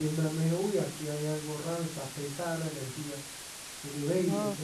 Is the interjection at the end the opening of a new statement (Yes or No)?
No